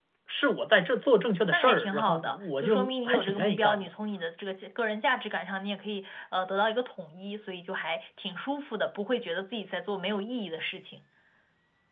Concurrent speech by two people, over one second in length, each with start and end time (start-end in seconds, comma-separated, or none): 1.5-3.9